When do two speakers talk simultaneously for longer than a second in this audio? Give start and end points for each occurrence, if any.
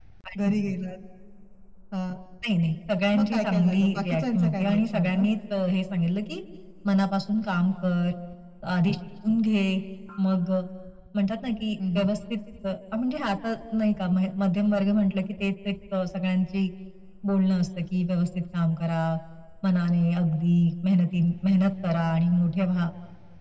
3.2-5.2

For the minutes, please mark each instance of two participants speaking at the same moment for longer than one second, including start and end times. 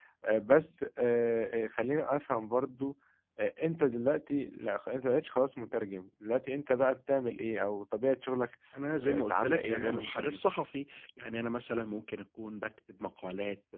9.0-10.4

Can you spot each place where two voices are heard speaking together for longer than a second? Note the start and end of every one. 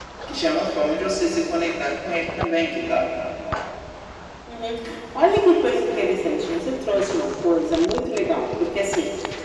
none

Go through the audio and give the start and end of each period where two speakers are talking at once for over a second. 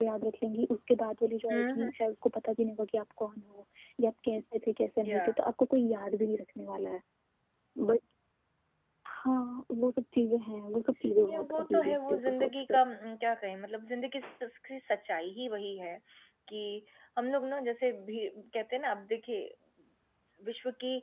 11.3-12.8

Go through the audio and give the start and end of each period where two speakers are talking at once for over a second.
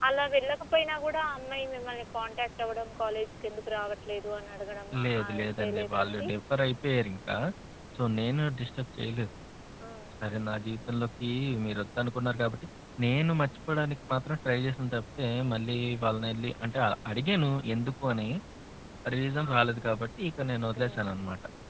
5.0-6.3

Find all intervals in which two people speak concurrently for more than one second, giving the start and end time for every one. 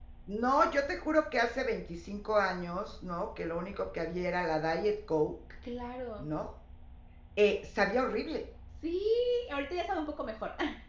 none

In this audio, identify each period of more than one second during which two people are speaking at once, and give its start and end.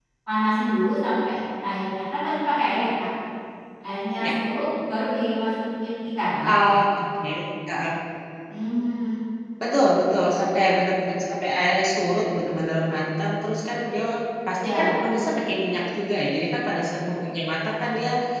none

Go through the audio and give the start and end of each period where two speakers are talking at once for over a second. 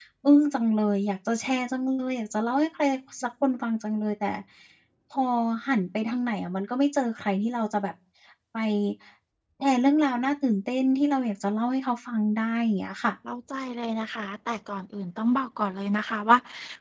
none

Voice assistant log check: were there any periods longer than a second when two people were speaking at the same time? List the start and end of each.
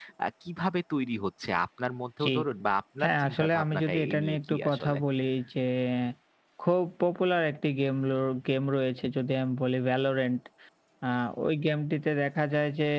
3.0-5.0

